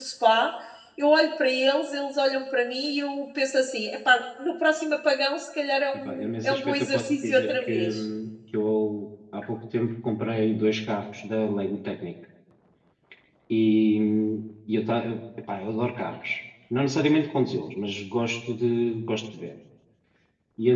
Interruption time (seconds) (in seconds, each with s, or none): 5.9 s